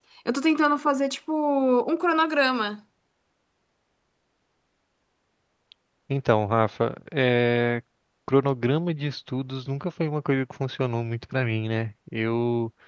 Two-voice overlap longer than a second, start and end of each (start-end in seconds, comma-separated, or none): none